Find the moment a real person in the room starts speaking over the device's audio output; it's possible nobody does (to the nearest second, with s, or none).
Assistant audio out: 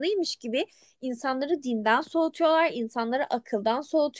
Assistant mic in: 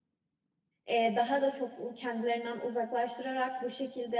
1 s